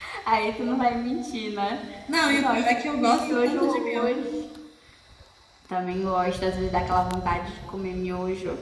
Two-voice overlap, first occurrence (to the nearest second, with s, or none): 2 s